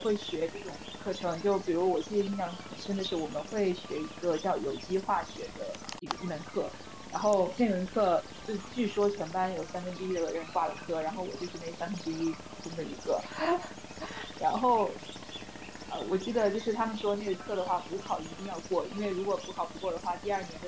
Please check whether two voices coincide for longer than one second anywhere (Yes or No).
No